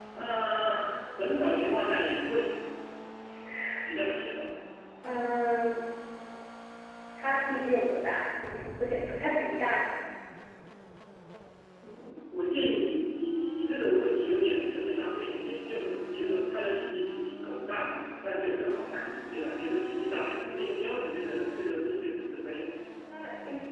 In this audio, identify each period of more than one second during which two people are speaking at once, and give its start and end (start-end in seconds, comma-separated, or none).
none